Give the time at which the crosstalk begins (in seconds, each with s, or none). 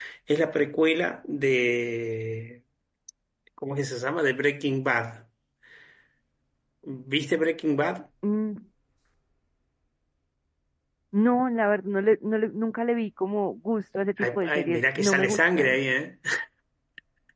14.2 s